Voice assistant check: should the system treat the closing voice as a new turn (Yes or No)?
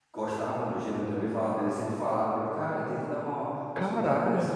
Yes